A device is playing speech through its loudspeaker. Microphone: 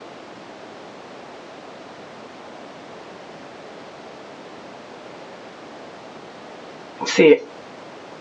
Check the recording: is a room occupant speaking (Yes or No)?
Yes